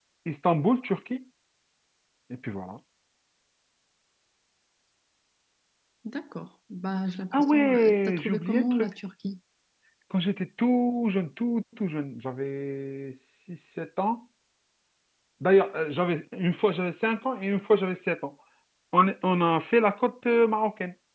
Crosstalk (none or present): present